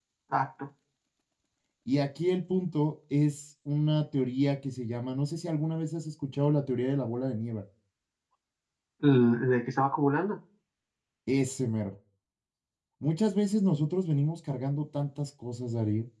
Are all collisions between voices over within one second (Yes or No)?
Yes